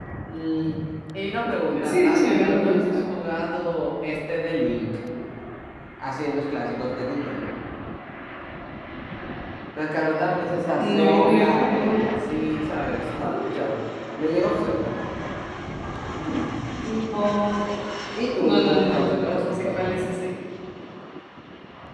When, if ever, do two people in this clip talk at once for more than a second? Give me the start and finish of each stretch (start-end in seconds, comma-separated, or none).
1.7-3.0, 10.7-12.0, 18.4-20.0